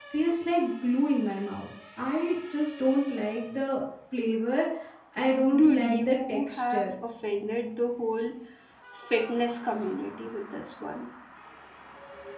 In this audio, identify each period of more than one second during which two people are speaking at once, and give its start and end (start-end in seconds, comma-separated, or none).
5.6-6.9